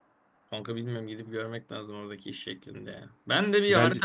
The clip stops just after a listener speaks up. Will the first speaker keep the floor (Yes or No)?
Yes